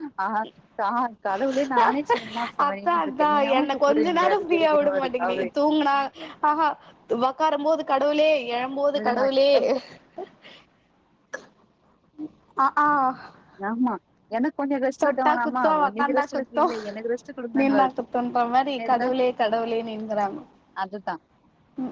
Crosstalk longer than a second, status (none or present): present